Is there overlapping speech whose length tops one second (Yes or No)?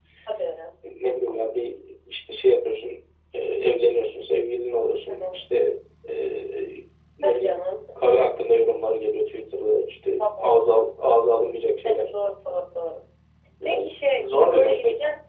Yes